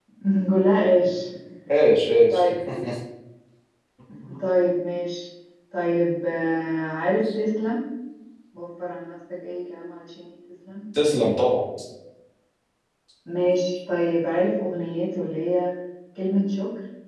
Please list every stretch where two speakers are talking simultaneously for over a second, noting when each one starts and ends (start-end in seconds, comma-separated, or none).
none